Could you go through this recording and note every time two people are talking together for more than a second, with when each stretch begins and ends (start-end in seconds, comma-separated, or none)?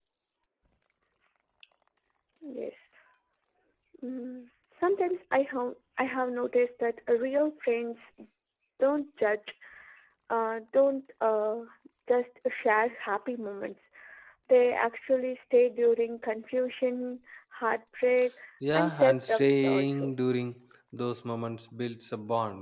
18.7-20.1